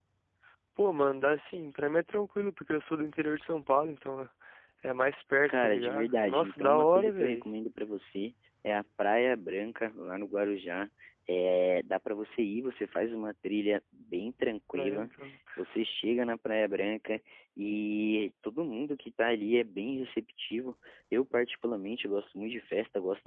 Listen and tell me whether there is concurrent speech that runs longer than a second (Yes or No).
Yes